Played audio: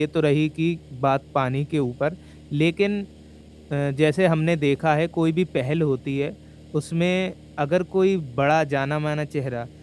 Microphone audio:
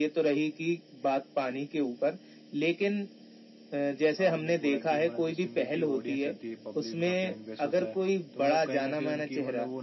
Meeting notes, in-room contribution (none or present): present